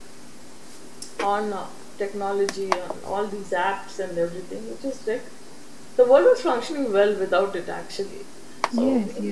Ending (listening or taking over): taking over